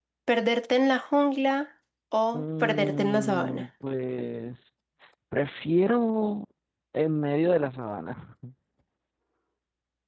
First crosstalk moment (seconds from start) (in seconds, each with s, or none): 2.3 s